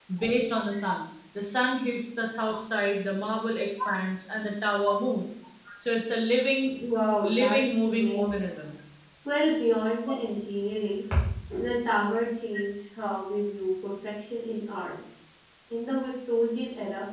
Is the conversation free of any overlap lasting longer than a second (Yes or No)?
No